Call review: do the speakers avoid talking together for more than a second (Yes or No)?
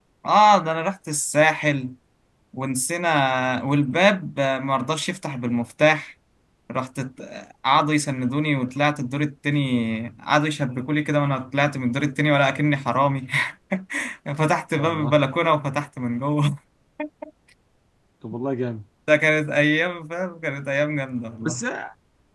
Yes